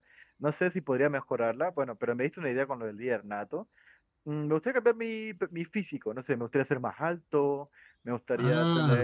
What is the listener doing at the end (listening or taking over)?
listening